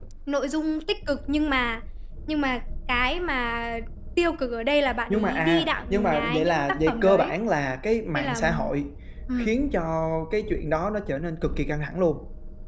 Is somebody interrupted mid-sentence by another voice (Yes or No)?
Yes